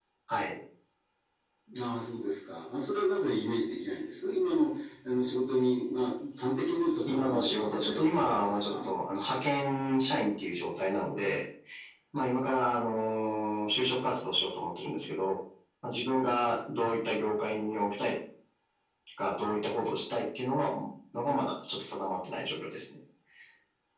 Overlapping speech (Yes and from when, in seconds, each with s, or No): Yes, from 7.0 s